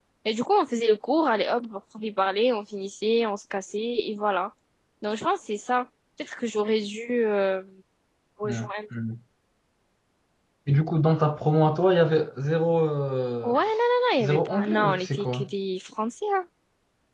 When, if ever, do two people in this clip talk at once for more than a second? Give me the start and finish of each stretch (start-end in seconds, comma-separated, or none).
14.2-15.5